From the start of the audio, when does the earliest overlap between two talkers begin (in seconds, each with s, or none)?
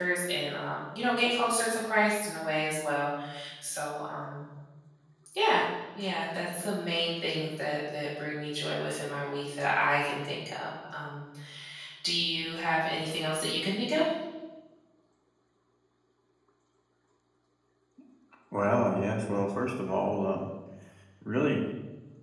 none